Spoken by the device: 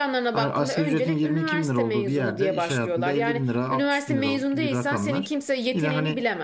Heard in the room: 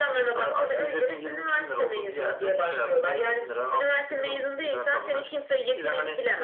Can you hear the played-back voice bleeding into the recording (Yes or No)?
Yes